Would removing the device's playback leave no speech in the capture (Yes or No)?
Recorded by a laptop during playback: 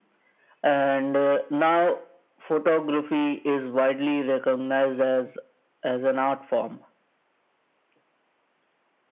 Yes